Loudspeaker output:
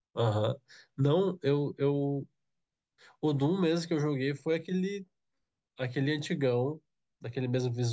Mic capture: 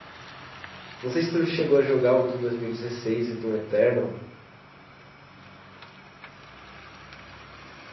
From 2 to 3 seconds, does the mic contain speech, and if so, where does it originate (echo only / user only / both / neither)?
user only